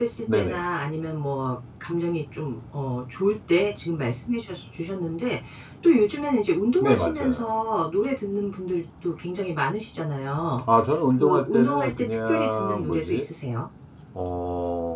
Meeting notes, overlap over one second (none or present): present